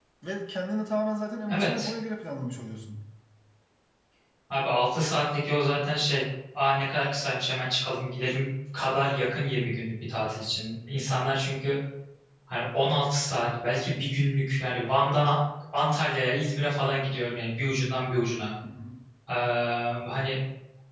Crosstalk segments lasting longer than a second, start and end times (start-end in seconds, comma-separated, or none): none